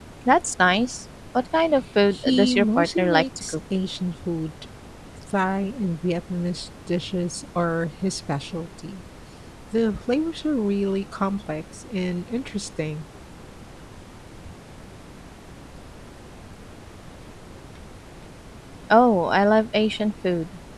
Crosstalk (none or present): present